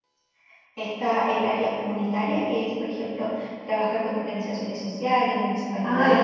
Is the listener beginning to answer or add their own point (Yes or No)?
Yes